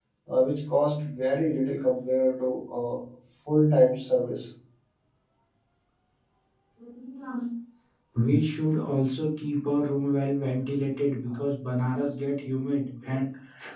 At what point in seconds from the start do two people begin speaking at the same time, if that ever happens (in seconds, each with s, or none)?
none